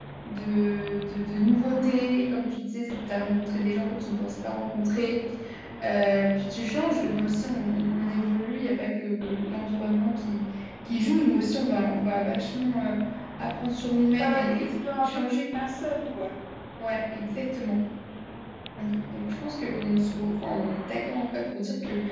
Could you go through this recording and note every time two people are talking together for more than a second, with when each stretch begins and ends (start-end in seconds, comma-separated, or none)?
14.2-15.4